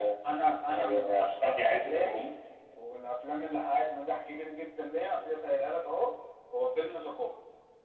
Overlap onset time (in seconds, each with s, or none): 0.7 s